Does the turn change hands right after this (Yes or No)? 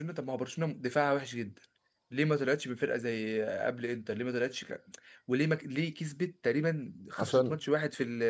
No